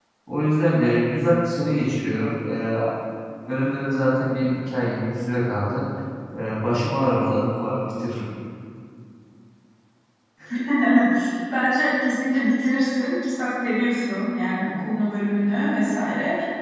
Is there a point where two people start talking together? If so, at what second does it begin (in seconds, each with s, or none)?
none